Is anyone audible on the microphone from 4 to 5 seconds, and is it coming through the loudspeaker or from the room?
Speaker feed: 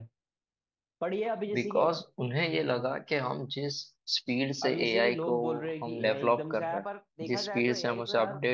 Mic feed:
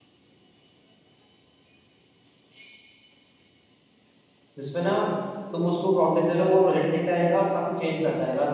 user only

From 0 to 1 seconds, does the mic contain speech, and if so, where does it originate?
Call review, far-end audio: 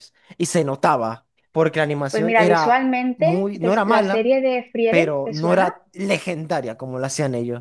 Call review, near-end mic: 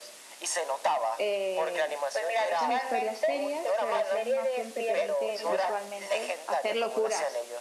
echo only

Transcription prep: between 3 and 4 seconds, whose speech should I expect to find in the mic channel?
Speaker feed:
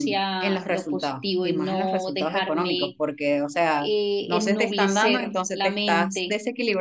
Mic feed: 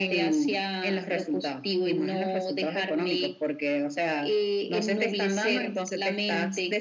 echo only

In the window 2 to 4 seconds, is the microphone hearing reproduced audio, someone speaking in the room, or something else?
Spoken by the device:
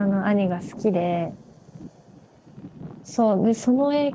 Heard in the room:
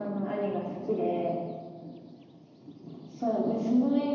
echo only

